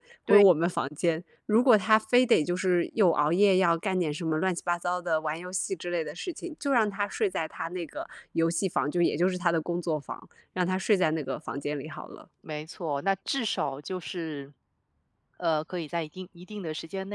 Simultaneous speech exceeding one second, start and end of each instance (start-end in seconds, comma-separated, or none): none